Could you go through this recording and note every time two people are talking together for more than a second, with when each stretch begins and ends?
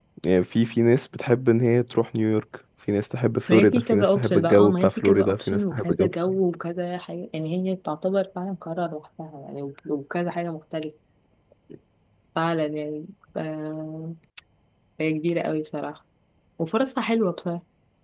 3.5-6.1

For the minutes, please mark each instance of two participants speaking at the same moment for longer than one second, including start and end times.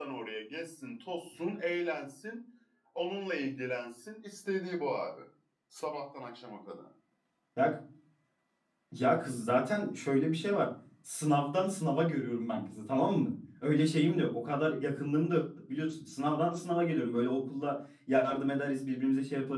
none

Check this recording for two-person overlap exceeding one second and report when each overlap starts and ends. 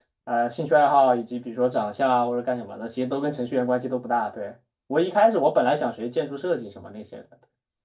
none

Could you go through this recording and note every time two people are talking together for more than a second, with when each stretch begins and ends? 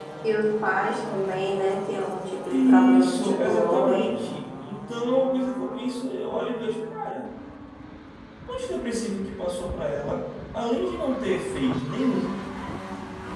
2.5-4.3

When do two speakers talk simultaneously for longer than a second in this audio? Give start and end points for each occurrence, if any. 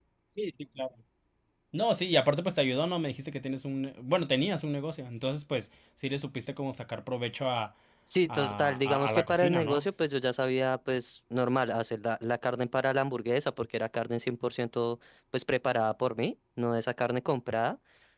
8.3-9.8

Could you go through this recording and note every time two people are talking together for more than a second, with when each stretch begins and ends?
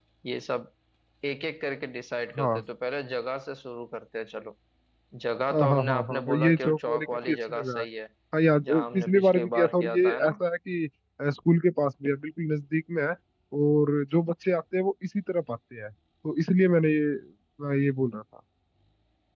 5.5-7.8, 8.6-10.3

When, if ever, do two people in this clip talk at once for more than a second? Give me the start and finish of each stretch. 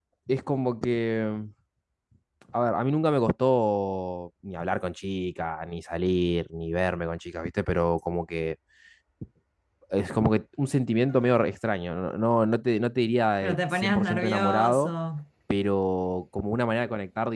13.4-14.9

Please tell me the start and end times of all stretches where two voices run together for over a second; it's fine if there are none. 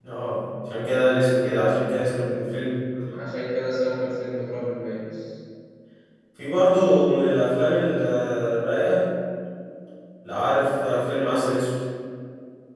none

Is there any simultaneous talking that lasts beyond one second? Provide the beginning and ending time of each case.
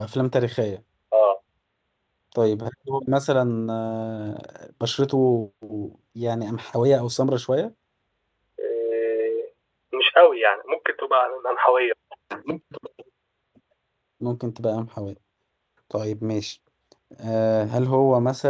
none

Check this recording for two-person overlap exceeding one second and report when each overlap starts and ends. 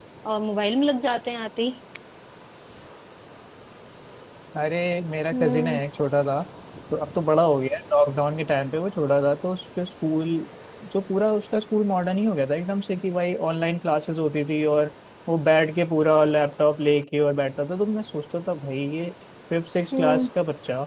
none

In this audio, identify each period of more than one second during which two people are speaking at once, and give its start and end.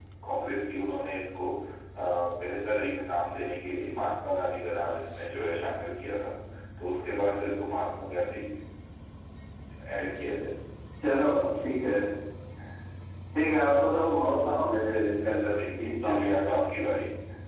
15.5-16.8

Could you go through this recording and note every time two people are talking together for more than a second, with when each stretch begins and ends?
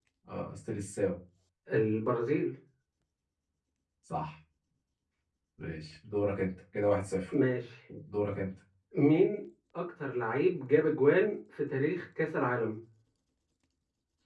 none

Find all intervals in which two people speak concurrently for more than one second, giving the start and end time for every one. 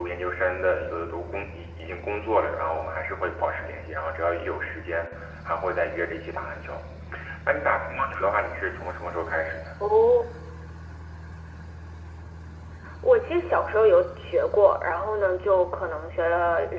none

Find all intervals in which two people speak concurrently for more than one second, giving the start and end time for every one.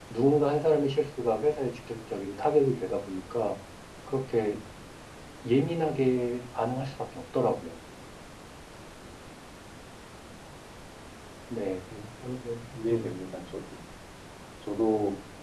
none

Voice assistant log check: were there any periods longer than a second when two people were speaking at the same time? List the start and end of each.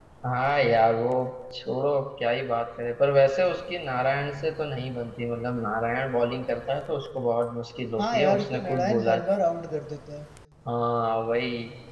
8.0-9.2

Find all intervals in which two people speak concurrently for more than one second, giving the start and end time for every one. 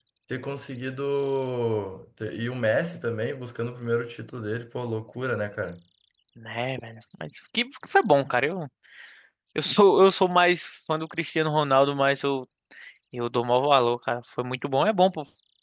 none

